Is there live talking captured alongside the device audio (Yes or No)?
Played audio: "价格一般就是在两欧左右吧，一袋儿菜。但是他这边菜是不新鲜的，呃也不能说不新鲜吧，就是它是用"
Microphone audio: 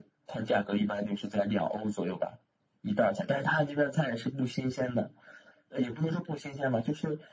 No